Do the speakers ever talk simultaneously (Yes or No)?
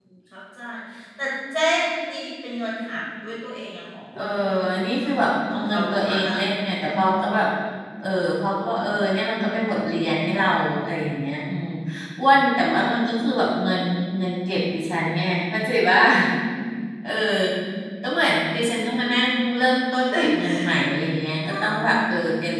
Yes